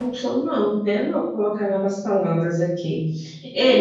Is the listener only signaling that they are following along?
Yes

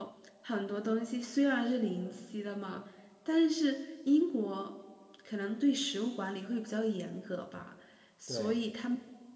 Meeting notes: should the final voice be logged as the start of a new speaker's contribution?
No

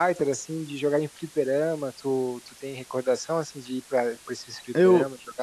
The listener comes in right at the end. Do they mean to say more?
Yes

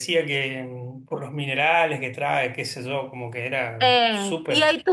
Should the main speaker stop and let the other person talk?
Yes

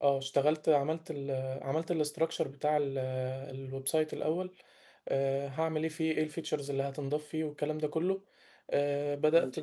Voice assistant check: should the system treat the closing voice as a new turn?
No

